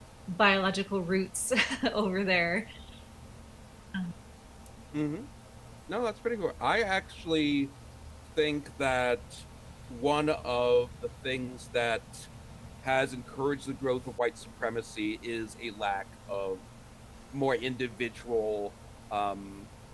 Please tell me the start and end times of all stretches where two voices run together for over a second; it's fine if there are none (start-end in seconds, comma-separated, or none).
none